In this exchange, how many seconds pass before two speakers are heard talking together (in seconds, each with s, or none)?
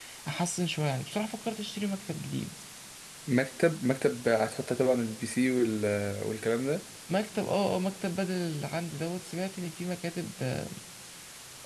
none